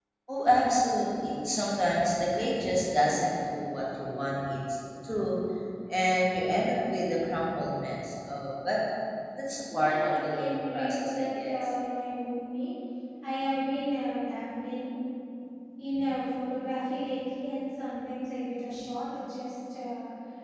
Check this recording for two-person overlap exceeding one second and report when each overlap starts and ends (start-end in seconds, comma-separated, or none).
9.7-11.6